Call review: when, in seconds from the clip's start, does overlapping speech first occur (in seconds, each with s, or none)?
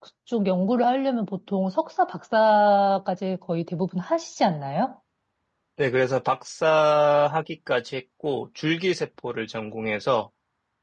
none